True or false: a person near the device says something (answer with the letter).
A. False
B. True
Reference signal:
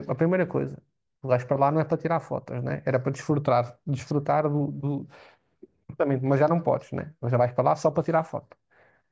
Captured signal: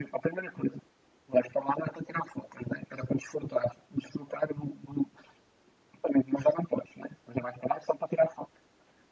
A